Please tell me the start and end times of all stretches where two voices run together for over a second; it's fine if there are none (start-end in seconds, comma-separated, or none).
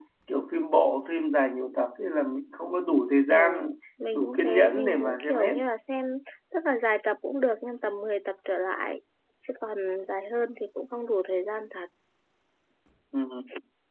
4.1-5.5